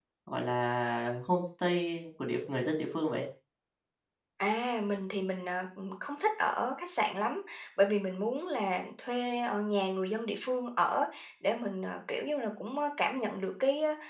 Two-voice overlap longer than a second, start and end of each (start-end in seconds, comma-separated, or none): none